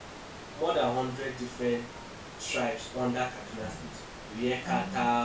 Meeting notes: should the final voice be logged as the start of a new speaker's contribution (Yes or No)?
No